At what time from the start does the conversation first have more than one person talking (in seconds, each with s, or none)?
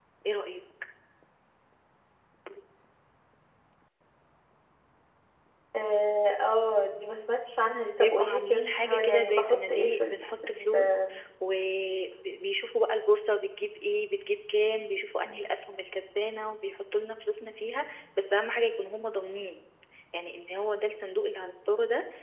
8.0 s